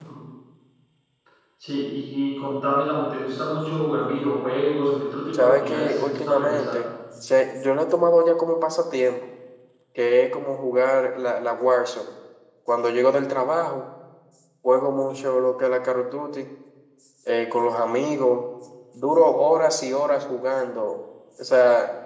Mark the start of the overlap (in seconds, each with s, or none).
5.3 s